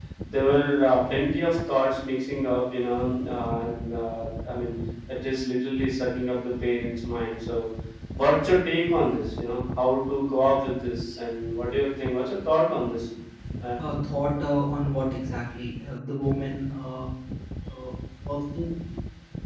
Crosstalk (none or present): none